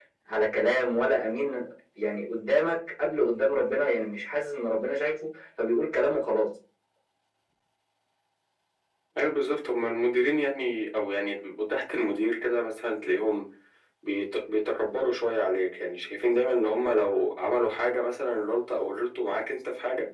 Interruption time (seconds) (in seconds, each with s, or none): none